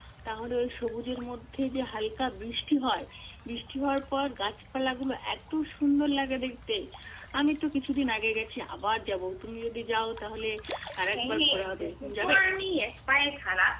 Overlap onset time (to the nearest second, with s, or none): 11 s